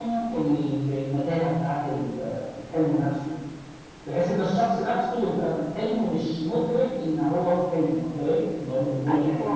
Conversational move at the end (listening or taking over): taking over